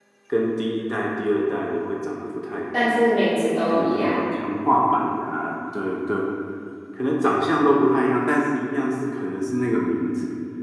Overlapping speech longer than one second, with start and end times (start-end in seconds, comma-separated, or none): none